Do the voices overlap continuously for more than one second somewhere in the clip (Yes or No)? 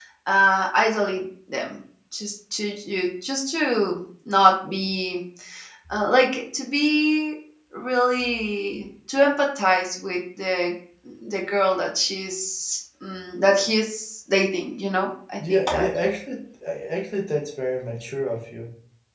No